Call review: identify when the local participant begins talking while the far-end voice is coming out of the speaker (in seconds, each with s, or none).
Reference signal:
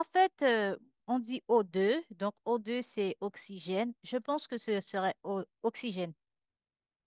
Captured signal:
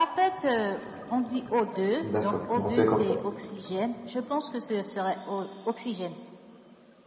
2.0 s